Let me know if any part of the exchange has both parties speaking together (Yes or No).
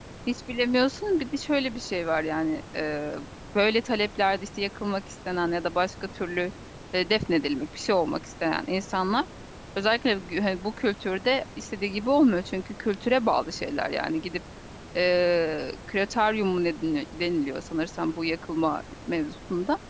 No